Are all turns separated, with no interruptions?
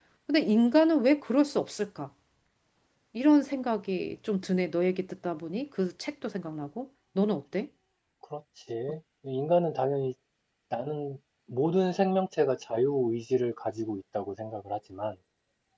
Yes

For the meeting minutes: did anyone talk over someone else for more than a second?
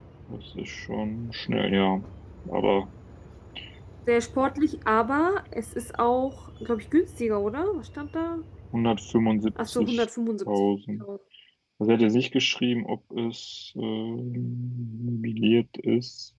No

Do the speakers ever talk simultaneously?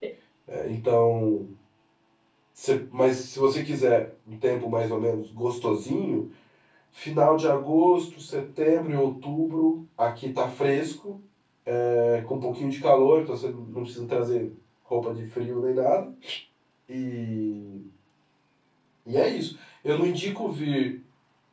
No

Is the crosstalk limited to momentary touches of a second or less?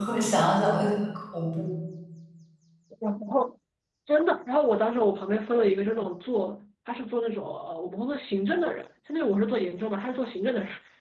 Yes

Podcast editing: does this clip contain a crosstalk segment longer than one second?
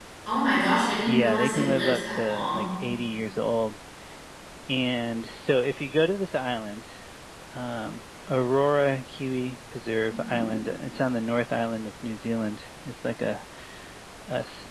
Yes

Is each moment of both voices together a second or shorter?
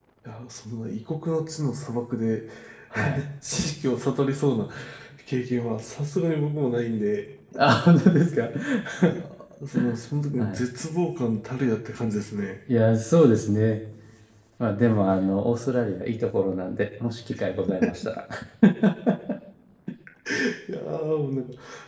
Yes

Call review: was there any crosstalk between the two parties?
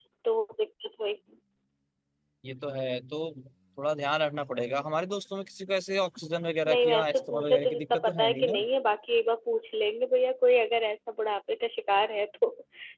Yes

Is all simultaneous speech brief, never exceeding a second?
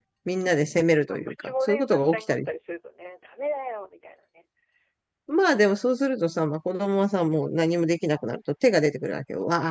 No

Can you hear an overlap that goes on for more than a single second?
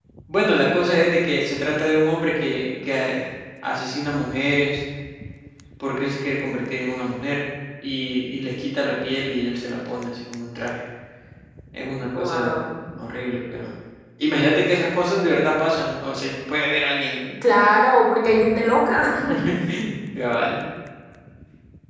No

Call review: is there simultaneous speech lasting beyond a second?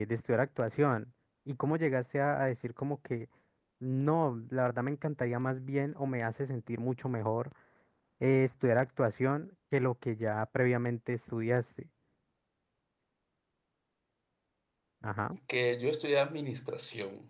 No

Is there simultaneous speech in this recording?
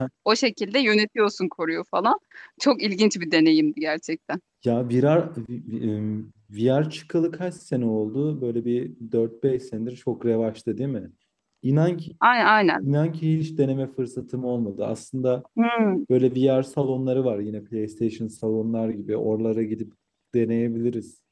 No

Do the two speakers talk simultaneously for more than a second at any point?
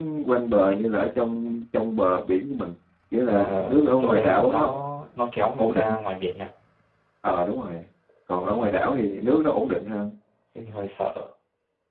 Yes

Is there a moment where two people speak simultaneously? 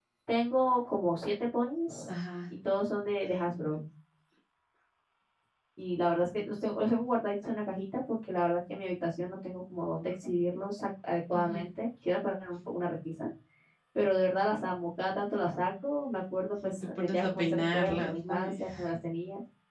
Yes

